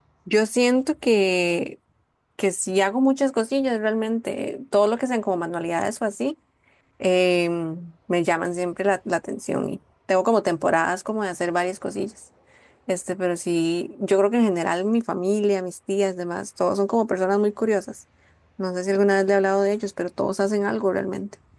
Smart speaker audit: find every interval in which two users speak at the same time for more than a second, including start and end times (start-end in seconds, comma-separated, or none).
none